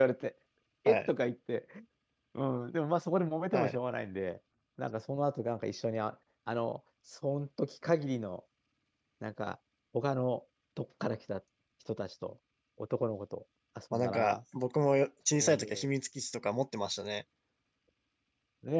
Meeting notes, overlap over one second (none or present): none